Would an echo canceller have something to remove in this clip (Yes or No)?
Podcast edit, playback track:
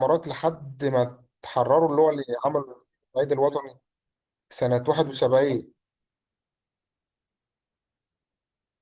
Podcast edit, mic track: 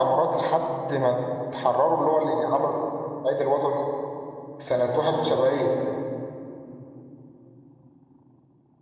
Yes